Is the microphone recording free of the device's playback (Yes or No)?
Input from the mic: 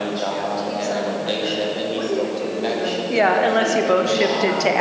No